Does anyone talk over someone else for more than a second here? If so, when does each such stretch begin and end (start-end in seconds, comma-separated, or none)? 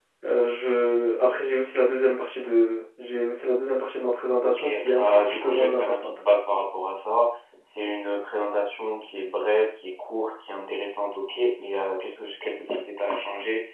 4.4-6.2